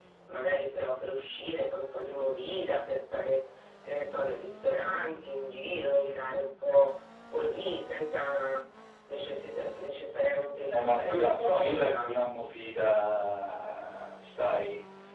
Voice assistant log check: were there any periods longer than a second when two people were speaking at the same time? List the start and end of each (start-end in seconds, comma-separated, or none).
10.7-12.1